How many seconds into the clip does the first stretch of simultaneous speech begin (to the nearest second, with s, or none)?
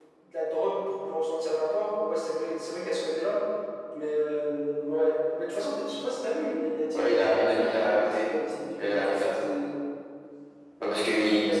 7 s